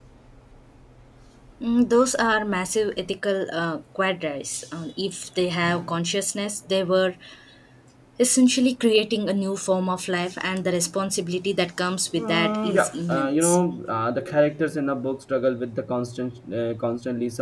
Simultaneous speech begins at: 12 s

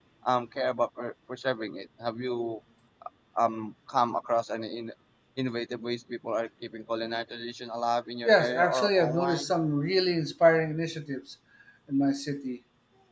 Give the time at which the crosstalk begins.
8 s

